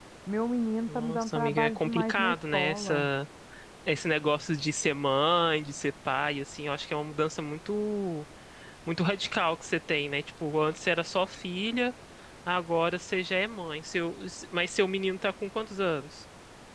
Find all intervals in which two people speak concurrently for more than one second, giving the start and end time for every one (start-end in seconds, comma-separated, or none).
0.9-3.1